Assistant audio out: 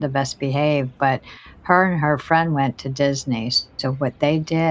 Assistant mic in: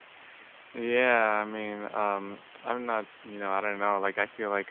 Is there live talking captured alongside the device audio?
Yes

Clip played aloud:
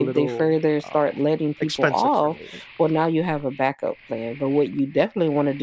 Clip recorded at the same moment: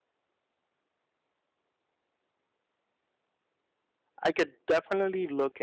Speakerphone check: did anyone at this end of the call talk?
Yes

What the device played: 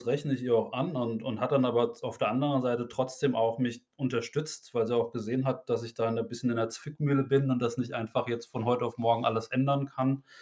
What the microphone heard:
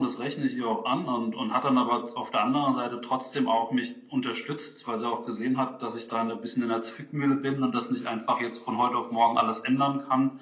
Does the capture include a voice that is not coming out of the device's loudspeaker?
No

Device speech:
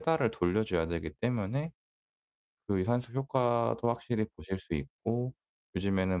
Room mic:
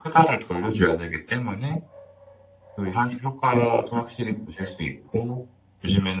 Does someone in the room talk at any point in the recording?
No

